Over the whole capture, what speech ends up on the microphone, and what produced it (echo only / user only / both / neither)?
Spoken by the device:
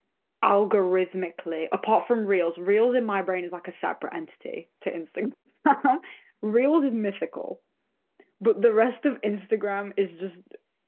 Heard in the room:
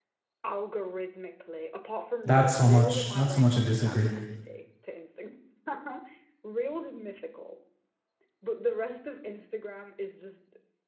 both